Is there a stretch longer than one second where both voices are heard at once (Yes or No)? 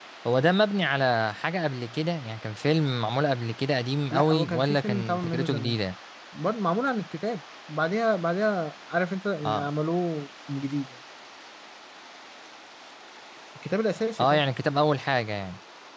Yes